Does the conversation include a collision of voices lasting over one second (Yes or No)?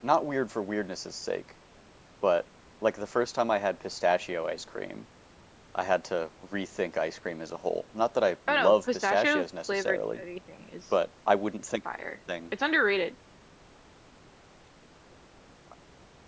Yes